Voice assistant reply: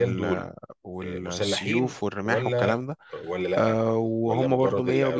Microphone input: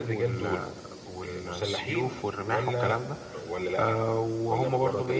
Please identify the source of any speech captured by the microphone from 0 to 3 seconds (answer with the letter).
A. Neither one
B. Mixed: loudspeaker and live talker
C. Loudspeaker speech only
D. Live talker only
C